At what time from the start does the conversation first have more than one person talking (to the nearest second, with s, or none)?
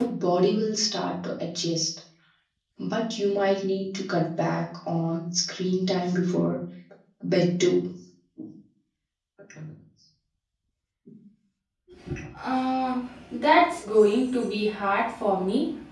none